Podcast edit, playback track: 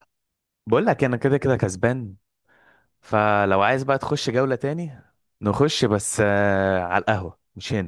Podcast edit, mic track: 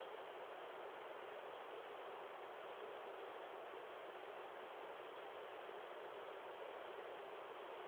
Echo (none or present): none